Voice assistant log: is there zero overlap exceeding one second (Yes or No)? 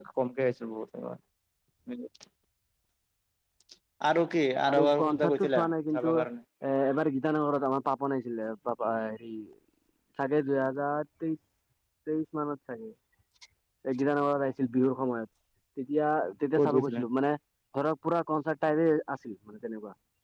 No